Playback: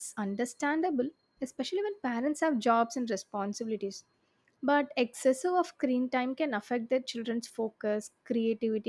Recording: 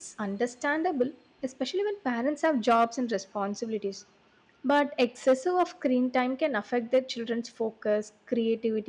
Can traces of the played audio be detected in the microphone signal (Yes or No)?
Yes